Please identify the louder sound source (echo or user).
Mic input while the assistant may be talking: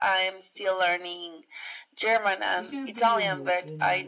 echo